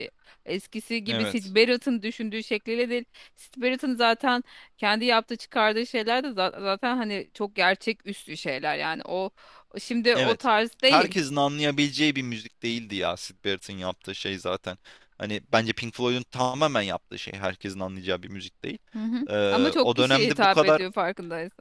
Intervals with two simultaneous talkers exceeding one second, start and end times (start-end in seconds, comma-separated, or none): 19.5-20.8